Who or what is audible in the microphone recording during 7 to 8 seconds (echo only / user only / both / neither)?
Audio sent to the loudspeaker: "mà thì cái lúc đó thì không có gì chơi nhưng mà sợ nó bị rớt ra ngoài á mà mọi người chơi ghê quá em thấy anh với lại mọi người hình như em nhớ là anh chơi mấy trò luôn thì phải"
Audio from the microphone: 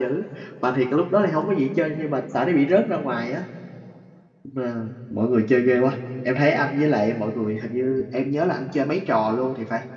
echo only